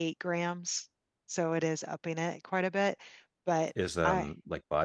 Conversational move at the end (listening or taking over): taking over